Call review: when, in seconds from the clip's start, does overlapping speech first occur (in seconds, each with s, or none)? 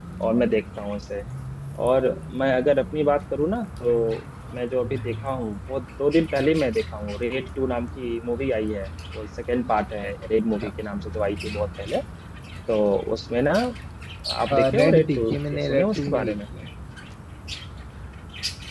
14.8 s